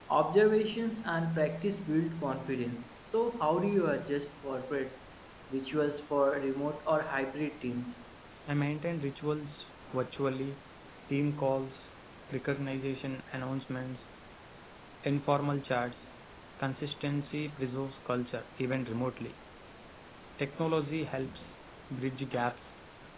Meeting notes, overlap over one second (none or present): none